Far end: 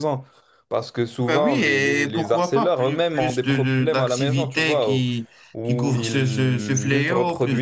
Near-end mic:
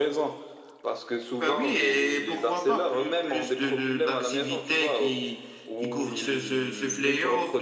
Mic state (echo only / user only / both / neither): echo only